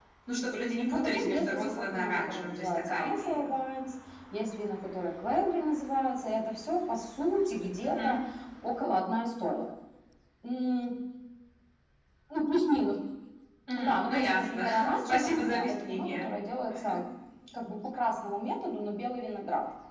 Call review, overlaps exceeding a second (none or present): present